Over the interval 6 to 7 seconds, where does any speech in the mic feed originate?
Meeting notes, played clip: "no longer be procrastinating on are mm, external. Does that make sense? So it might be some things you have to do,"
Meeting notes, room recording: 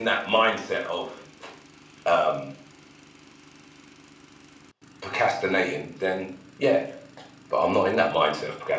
user only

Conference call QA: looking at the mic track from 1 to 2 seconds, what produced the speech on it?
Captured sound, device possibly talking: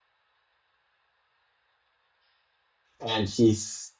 neither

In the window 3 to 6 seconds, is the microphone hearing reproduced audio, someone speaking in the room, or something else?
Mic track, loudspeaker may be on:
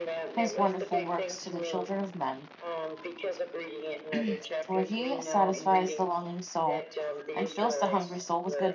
both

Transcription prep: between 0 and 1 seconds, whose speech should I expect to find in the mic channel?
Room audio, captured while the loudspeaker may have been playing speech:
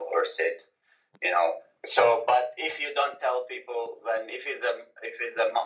echo only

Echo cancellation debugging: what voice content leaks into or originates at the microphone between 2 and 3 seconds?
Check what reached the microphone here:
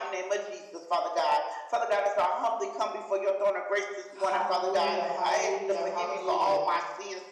echo only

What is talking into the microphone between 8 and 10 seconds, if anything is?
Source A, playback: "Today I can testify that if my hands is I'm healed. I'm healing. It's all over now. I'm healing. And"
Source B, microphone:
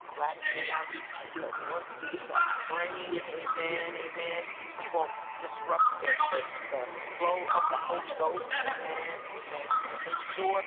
both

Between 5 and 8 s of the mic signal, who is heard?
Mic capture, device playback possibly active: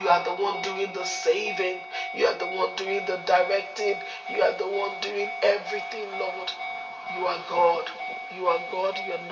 echo only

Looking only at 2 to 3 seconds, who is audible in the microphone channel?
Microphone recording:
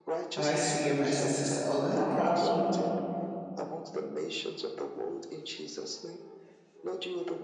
both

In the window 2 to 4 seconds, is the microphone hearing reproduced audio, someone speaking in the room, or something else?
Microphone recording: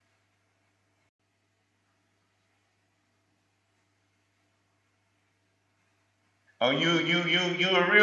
neither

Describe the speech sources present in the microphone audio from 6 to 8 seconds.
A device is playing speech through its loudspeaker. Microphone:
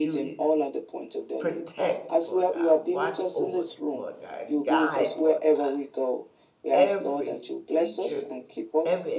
both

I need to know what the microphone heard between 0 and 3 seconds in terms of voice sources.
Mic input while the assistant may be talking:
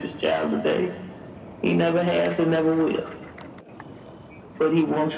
echo only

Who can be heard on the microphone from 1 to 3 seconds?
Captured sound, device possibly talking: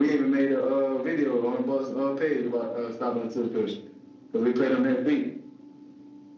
echo only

